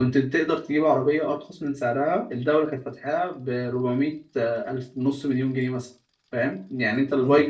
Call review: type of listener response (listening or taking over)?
taking over